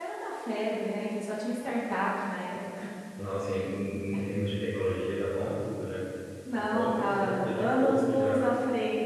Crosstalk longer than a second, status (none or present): present